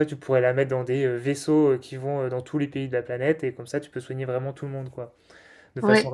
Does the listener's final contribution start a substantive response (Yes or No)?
No